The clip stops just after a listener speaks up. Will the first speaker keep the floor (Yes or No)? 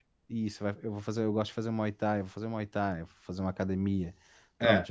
Yes